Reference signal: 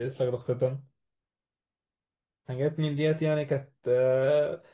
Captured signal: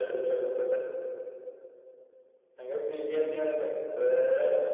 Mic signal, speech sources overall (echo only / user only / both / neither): echo only